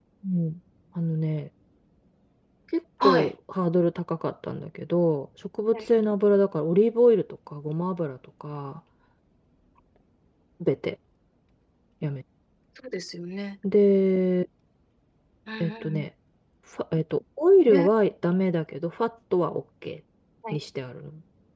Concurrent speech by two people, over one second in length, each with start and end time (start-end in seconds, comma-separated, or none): none